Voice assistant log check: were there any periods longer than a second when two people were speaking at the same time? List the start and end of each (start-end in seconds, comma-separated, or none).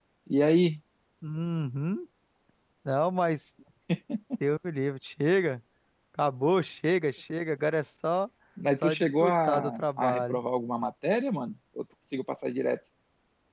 8.8-10.4